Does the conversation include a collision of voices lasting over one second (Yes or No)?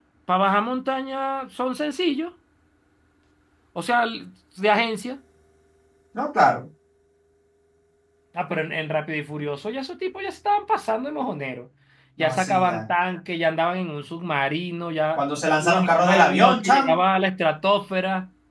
Yes